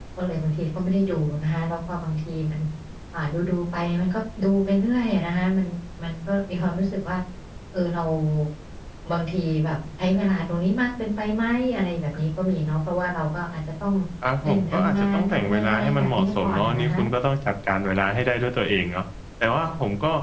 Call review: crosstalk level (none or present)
present